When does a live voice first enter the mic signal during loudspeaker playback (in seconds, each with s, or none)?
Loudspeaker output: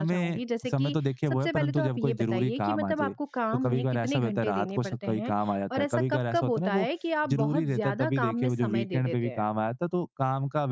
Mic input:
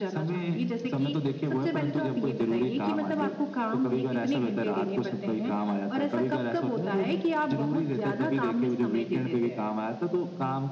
none